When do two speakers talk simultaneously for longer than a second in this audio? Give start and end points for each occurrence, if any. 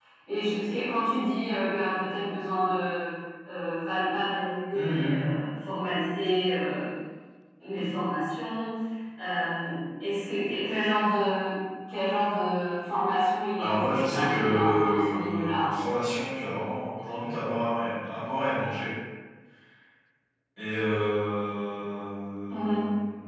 13.6-15.7

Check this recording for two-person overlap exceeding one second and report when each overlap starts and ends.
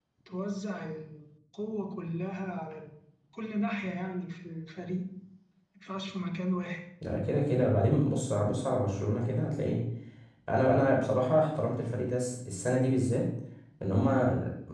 none

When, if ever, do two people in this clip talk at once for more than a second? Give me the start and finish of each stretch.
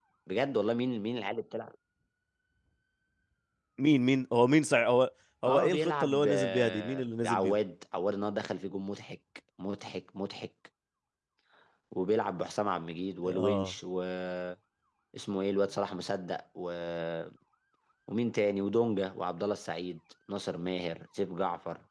5.4-7.5

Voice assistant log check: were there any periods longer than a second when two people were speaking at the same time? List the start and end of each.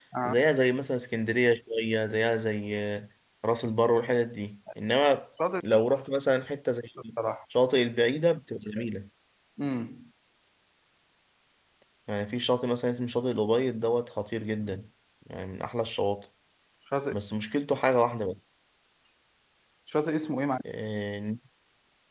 none

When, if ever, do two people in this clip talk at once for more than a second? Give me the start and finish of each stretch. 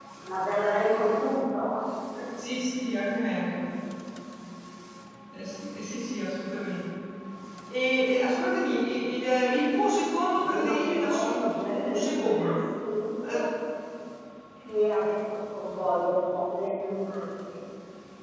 10.3-12.6

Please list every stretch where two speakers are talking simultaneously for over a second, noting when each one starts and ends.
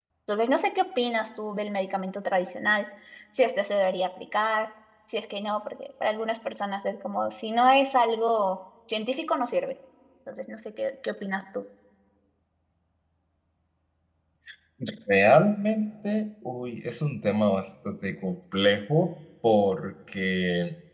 none

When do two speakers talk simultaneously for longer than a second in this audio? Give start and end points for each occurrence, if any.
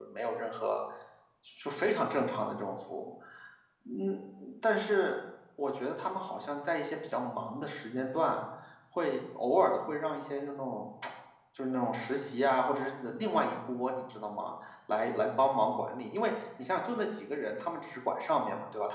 none

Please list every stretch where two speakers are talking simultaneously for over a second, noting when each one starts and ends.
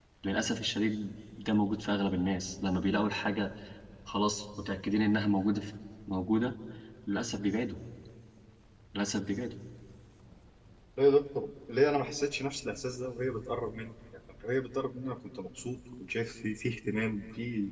none

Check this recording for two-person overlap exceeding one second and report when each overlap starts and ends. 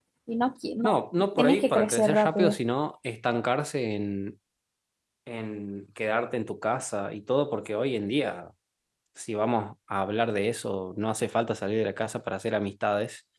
1.4-2.6

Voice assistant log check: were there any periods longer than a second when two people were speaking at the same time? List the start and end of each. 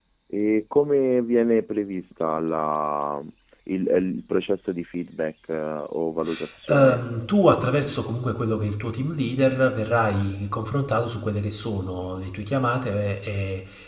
none

